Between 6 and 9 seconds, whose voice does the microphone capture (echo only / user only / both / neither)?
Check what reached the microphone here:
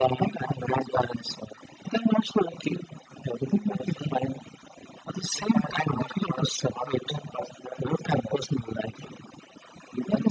echo only